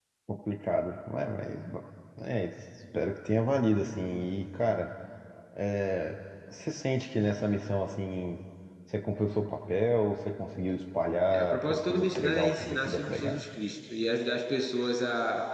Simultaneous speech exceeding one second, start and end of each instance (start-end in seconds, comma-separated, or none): 11.3-13.4